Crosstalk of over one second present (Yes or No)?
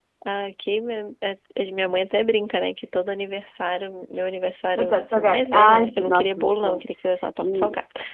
Yes